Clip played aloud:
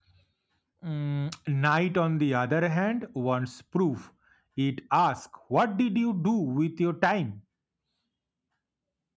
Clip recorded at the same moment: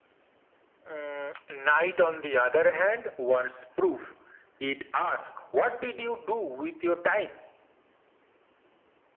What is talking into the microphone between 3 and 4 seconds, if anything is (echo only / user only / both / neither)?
echo only